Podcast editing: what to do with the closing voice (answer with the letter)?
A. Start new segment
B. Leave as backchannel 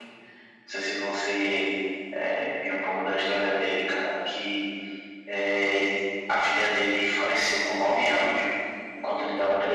B